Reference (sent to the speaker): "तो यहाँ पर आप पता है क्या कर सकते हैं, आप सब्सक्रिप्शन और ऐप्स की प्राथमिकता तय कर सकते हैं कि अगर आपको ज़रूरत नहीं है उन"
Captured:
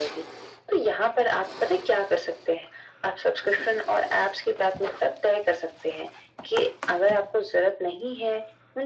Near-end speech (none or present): none